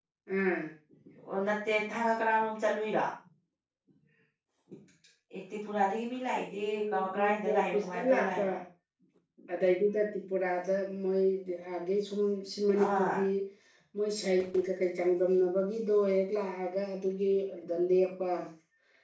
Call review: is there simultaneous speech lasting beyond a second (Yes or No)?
Yes